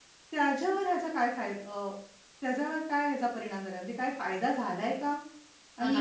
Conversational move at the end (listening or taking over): taking over